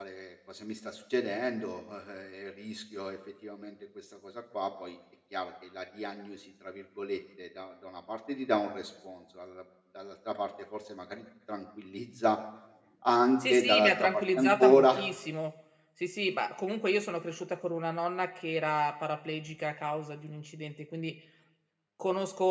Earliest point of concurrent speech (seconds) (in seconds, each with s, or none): 13.5 s